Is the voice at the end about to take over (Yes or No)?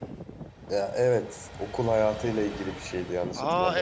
Yes